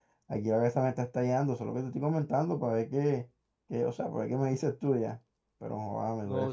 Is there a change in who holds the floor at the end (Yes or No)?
Yes